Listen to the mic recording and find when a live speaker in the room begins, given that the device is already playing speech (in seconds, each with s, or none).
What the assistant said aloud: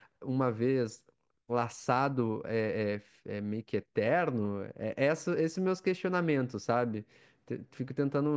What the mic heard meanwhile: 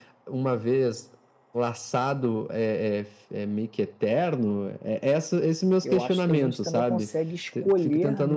5.8 s